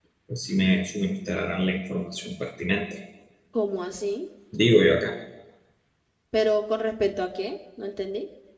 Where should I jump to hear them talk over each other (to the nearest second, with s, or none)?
none